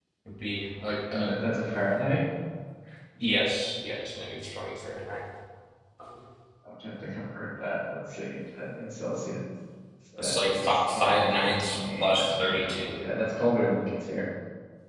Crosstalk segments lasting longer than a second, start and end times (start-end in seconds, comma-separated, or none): 10.2-12.9